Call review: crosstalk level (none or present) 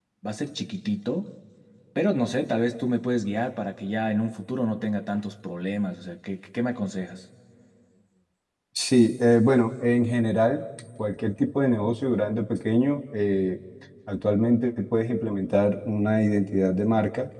none